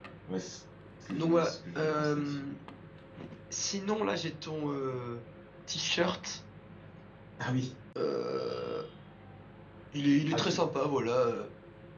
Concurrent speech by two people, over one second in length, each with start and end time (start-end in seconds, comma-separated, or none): 1.1-2.4